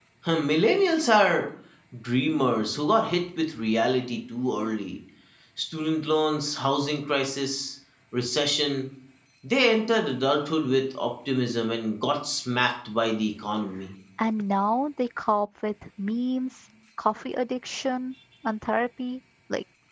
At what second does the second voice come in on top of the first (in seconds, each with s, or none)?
none